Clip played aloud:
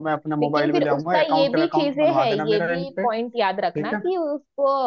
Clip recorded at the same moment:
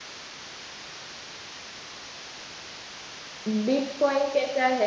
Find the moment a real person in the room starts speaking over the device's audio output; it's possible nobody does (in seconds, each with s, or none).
3.5 s